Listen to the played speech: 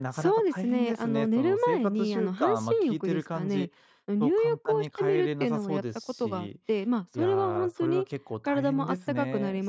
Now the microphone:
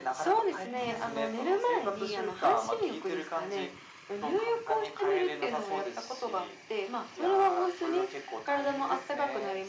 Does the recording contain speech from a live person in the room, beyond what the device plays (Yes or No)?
No